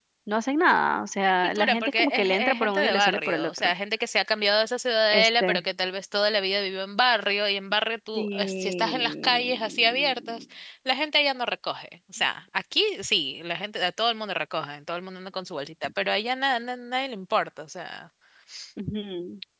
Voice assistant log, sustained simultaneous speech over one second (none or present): present